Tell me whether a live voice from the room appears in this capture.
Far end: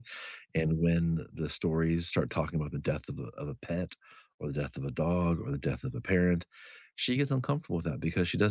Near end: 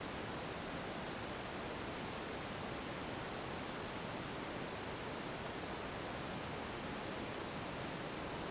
No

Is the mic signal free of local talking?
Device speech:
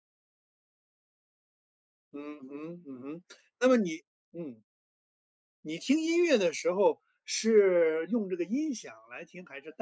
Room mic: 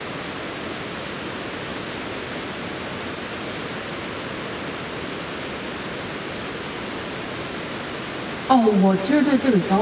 No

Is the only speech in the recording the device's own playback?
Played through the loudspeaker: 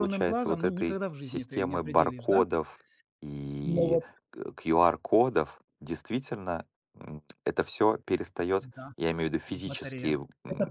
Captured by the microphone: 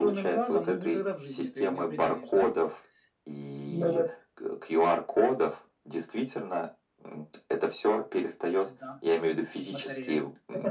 Yes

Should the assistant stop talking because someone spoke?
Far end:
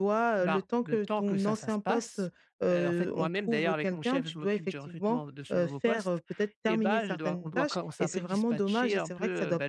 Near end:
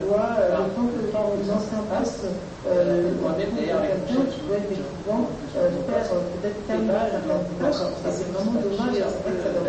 No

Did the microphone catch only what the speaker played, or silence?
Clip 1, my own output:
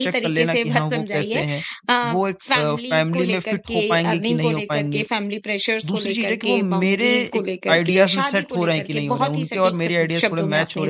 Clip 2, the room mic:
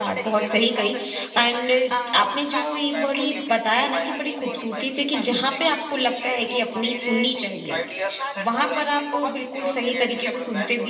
No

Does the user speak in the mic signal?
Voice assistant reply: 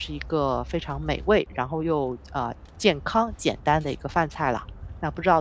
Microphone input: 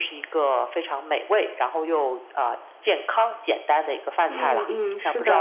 Yes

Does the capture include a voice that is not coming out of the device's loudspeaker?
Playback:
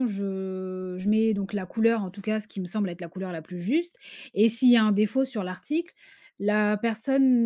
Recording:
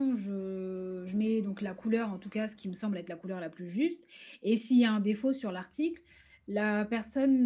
No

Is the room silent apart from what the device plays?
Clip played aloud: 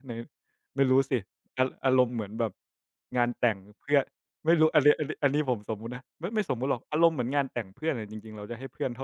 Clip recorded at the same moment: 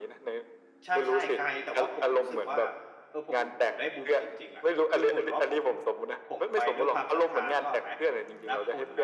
No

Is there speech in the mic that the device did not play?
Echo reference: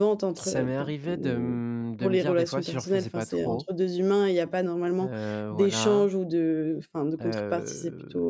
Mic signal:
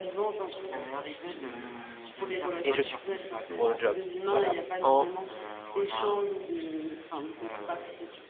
Yes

